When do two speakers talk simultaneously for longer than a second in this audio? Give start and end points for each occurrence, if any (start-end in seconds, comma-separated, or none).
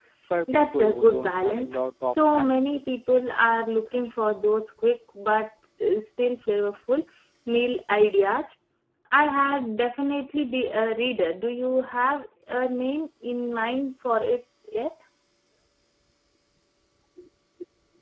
0.5-2.6